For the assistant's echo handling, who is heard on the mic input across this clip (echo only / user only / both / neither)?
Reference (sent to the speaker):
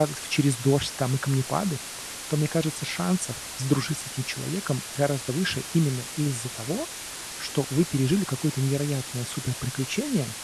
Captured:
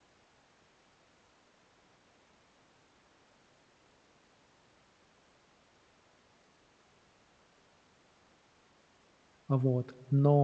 user only